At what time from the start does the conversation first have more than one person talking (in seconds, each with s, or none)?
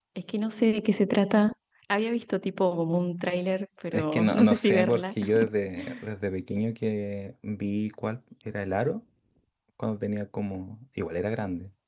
3.9 s